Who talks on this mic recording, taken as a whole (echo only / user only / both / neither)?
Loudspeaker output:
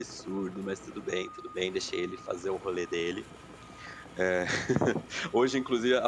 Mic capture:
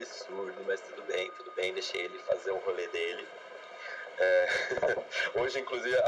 echo only